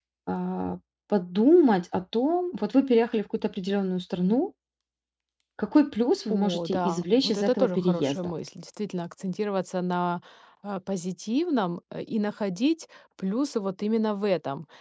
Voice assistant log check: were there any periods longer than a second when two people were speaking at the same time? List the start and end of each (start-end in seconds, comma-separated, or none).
6.3-8.3